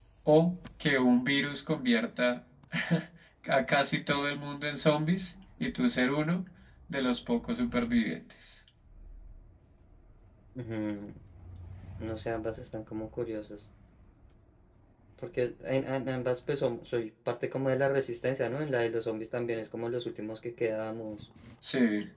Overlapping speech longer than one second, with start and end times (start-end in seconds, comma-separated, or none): none